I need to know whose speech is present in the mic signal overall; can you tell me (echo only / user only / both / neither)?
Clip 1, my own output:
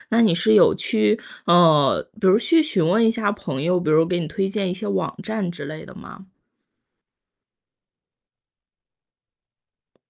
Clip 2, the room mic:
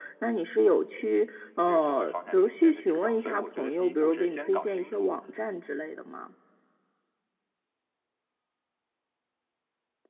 both